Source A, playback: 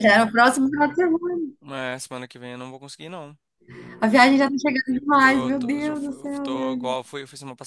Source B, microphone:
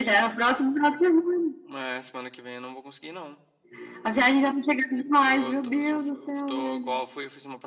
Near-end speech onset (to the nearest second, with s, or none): none